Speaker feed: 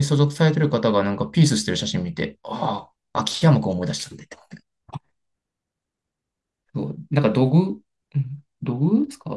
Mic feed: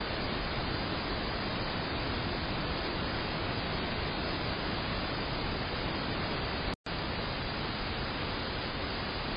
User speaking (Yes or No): No